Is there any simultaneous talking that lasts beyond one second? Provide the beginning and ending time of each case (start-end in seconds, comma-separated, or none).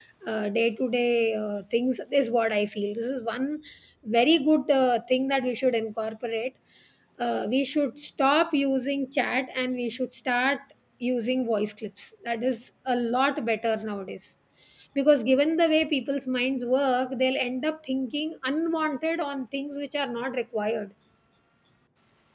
none